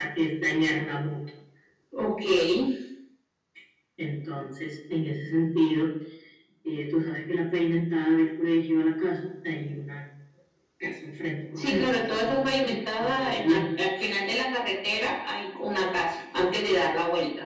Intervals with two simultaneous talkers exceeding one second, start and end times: 11.5-13.6

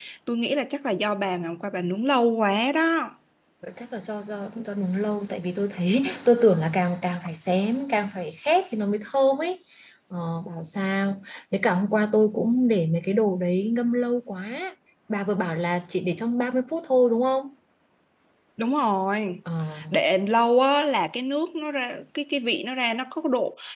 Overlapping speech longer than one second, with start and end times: none

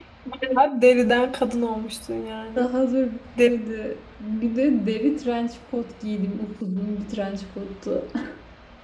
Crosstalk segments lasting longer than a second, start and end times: none

